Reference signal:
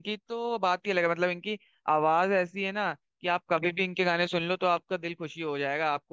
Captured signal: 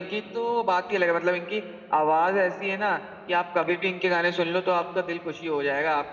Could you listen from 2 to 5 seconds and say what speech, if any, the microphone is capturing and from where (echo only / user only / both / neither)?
echo only